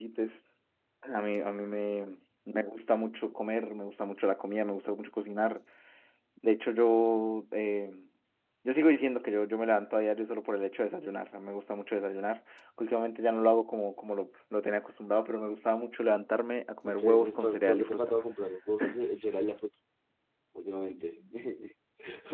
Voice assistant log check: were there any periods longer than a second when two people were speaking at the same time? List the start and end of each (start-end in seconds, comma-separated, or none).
16.9-18.1